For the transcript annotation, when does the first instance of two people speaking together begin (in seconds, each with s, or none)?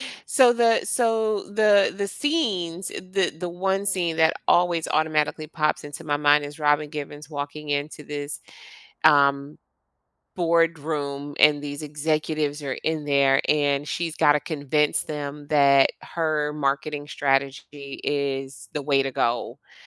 none